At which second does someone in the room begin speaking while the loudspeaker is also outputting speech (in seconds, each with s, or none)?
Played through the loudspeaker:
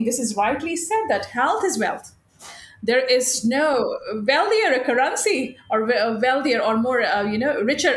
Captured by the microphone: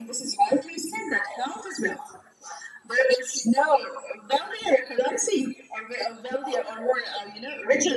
none